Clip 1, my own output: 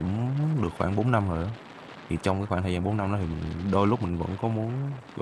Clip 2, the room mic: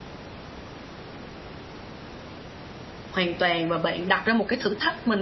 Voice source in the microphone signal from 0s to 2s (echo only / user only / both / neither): neither